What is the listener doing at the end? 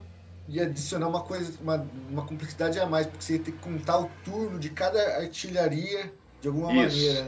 taking over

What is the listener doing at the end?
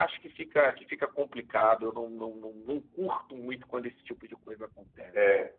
taking over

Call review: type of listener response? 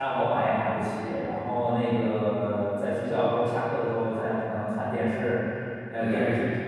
listening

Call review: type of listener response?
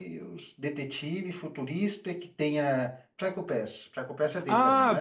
taking over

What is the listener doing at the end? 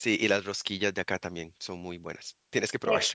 taking over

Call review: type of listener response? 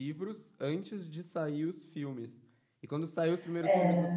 listening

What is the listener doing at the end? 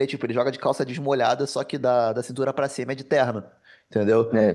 listening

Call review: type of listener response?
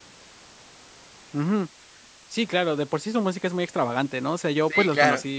listening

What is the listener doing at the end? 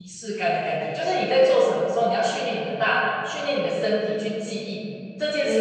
listening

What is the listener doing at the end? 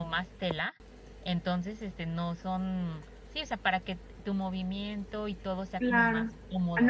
taking over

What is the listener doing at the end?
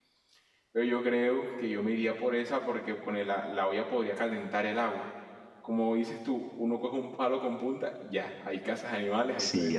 taking over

